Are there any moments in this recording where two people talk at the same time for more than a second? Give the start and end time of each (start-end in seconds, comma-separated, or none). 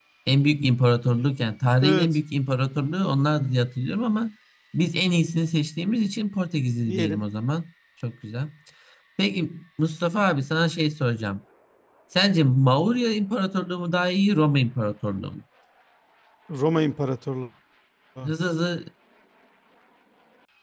none